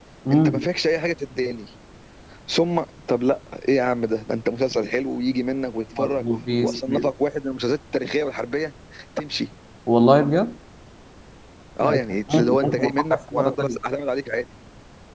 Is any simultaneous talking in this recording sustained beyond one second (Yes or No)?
Yes